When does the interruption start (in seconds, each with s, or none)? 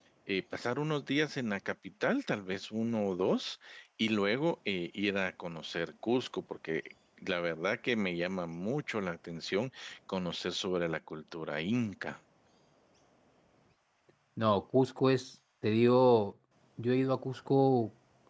none